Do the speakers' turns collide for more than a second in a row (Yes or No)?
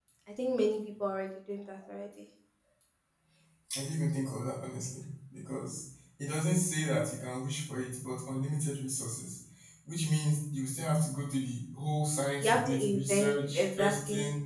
Yes